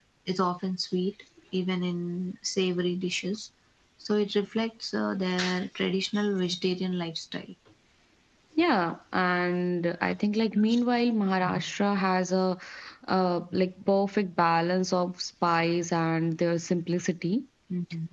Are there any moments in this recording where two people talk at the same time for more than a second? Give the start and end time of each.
none

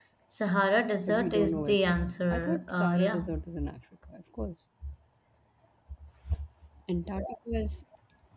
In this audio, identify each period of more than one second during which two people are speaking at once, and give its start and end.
1.1-3.3

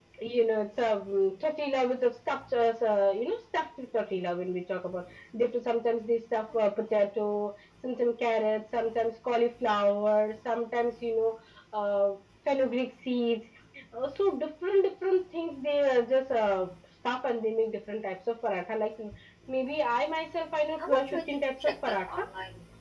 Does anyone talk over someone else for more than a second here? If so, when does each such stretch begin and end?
20.8-22.2

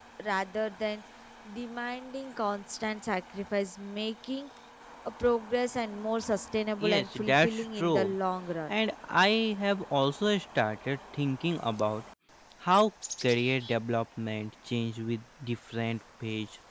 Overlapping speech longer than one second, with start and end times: 6.8-8.1

